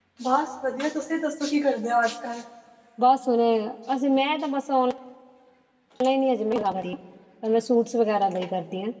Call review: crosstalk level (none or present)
none